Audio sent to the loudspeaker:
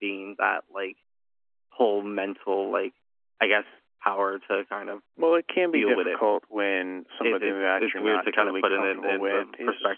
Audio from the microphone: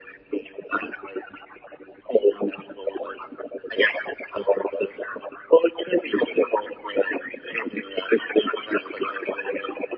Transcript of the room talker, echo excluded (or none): none